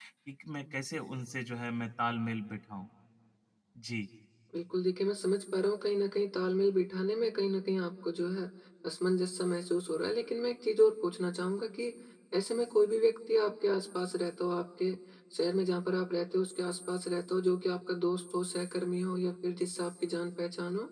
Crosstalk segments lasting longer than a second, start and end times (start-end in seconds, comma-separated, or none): none